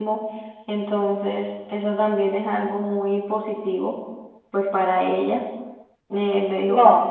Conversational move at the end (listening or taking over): listening